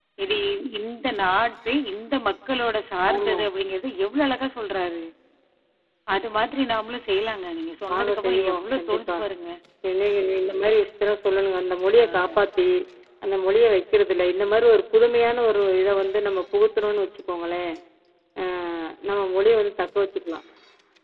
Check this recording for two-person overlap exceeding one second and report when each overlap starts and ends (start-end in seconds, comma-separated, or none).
7.9-9.2